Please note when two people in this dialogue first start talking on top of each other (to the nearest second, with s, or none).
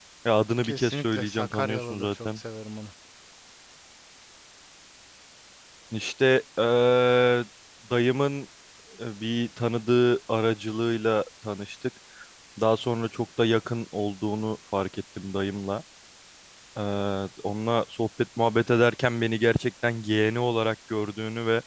1 s